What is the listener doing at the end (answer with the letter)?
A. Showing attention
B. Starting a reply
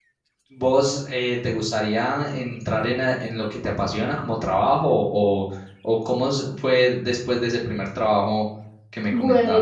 B